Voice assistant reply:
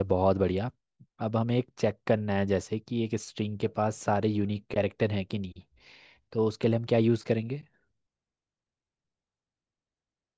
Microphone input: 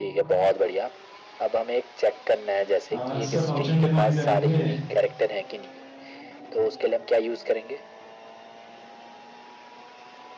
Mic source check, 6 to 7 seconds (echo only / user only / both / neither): echo only